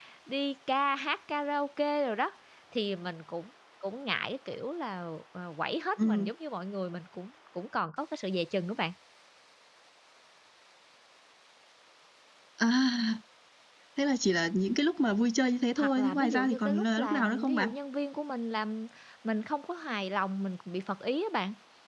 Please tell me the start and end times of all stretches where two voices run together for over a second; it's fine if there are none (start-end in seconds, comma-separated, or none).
15.8-17.7